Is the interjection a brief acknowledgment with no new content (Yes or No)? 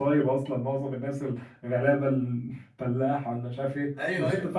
No